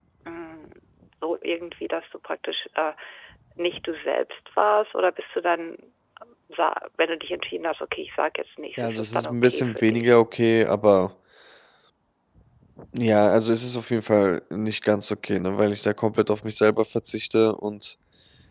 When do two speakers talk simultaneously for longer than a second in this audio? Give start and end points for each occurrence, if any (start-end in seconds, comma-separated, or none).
8.8-10.1